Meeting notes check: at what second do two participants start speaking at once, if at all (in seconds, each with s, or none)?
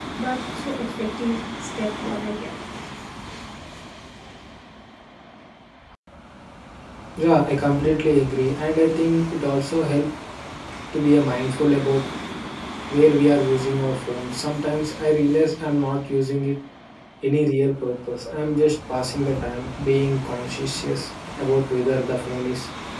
none